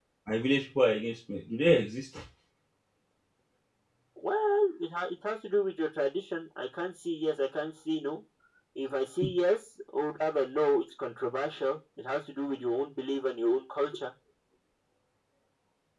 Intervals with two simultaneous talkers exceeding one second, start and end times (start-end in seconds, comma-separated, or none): none